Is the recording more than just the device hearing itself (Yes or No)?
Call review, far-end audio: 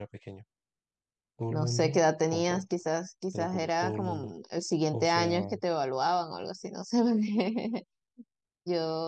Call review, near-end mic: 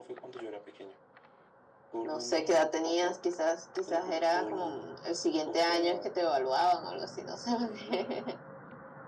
No